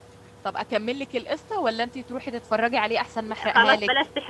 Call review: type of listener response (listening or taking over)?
taking over